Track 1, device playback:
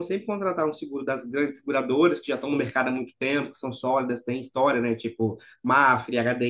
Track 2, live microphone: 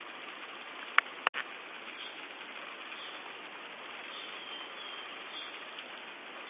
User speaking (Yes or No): No